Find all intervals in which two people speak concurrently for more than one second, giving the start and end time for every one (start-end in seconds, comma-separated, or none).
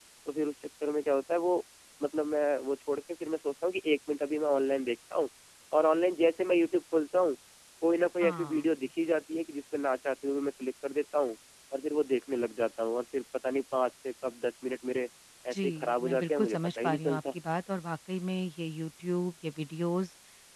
15.5-17.4